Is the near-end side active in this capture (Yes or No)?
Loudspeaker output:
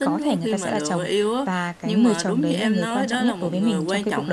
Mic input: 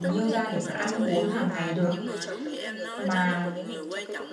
Yes